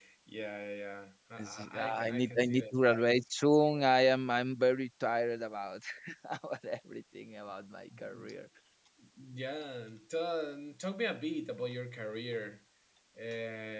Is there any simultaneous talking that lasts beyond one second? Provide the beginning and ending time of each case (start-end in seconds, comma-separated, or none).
1.4-2.8